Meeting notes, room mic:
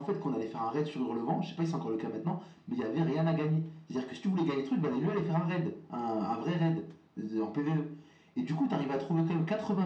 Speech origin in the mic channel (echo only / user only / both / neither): echo only